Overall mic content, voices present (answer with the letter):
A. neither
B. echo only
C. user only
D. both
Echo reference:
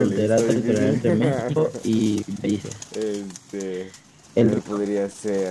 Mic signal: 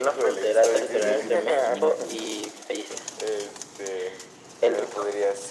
D